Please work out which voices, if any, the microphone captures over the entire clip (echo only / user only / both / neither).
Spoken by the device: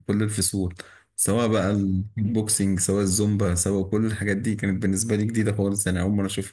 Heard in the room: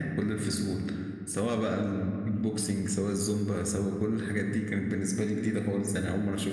echo only